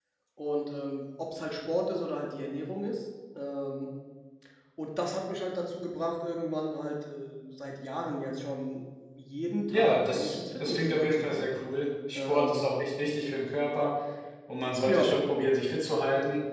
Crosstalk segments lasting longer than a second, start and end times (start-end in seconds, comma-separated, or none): 9.7-11.5